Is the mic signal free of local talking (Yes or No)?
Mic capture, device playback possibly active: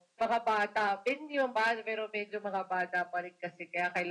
Yes